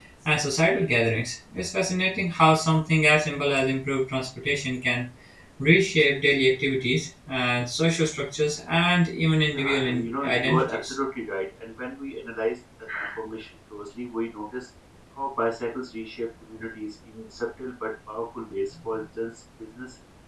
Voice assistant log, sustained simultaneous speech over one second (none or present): present